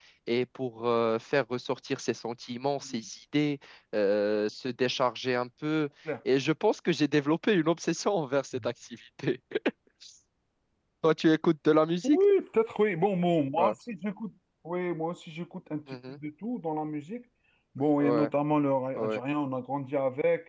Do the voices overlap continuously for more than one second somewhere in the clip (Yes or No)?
No